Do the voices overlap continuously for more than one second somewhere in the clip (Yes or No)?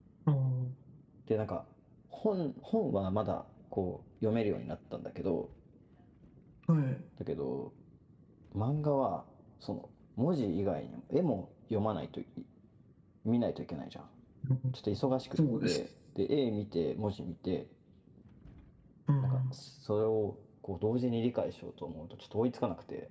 No